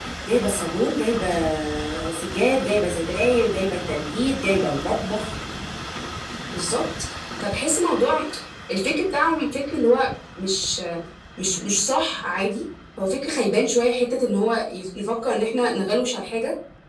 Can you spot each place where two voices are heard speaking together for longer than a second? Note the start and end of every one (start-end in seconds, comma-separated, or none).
none